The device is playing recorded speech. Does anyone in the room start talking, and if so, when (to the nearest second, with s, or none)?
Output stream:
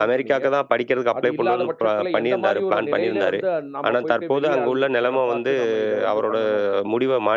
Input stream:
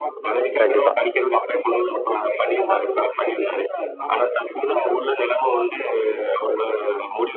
1 s